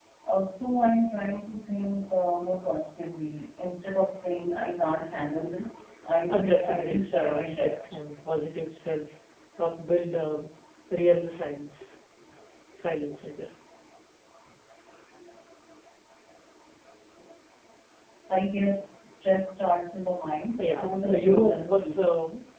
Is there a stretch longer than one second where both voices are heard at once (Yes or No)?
Yes